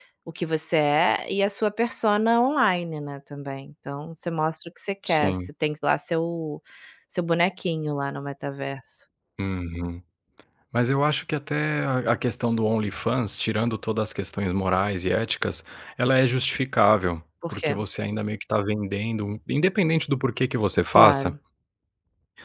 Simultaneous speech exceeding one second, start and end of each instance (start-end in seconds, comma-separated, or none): none